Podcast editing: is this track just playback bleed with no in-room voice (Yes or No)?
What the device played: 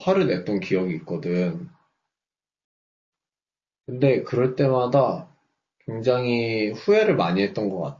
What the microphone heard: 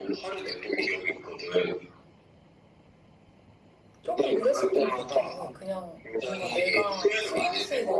No